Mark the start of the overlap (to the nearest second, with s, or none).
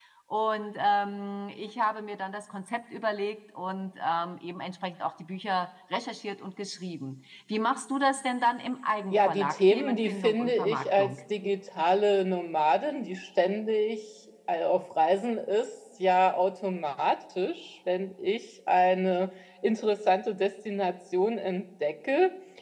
9 s